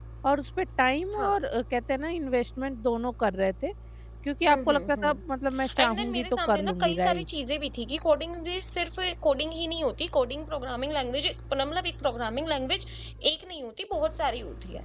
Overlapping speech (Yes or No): Yes